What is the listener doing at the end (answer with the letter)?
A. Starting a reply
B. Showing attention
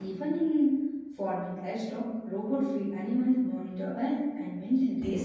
A